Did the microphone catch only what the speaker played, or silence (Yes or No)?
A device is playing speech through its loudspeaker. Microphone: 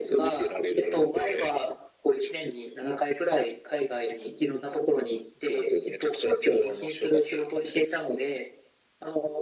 Yes